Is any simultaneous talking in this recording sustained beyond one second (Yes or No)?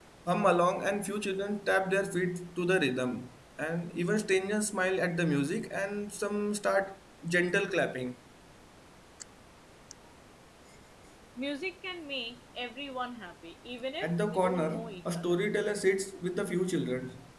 Yes